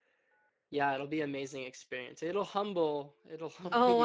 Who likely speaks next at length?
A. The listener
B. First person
A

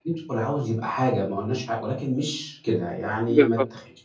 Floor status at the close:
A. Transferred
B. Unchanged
A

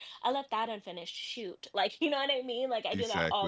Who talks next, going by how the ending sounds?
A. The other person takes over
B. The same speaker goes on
B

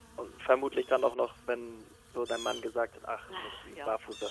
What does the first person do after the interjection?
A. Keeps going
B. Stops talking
A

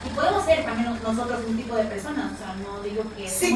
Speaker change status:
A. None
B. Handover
B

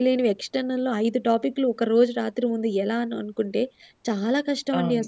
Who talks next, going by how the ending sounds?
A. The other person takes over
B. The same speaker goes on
B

